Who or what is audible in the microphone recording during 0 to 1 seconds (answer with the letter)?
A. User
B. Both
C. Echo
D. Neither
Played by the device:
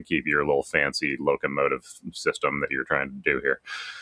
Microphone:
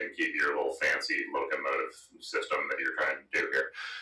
C